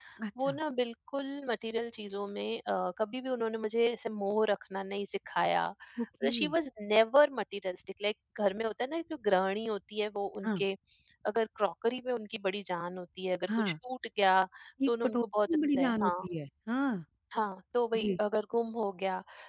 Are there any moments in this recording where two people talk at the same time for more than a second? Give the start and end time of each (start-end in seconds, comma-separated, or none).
14.9-16.2